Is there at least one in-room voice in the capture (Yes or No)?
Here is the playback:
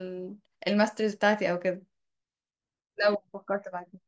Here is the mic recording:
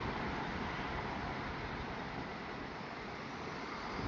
No